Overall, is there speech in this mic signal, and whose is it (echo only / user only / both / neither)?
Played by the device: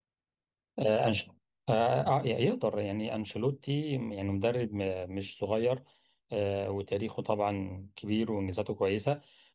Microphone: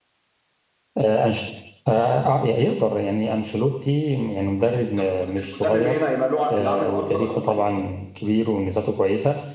both